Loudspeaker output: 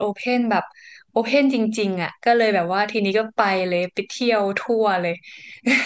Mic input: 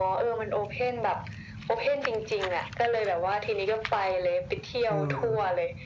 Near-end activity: present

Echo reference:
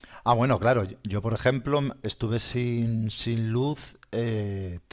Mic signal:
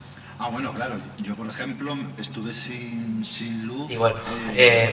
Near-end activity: present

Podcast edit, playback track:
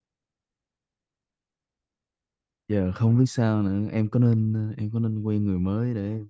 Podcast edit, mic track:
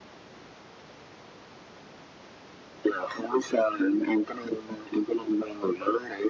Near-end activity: none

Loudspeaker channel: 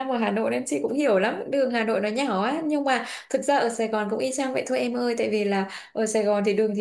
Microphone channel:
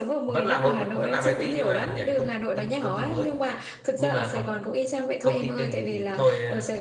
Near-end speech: present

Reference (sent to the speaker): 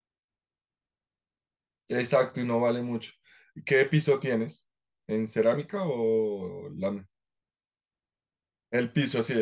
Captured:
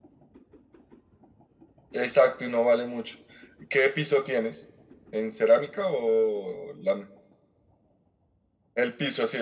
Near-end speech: none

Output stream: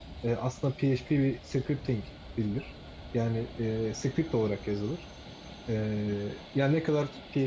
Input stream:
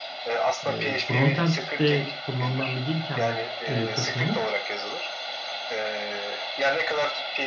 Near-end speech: present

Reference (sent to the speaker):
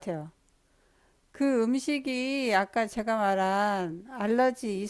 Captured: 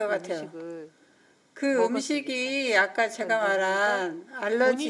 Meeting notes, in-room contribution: present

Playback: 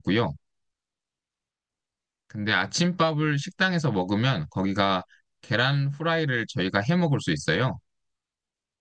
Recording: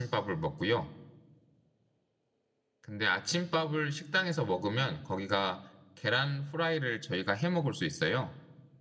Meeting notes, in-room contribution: none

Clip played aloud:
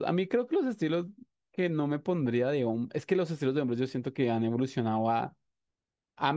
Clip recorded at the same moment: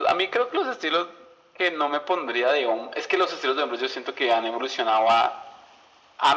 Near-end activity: none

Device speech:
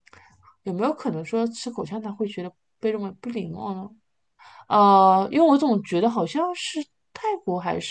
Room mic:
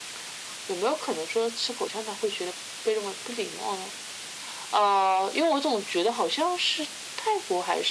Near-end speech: none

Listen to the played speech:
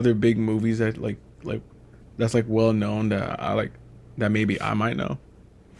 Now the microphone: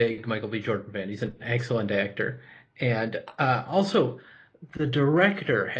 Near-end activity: present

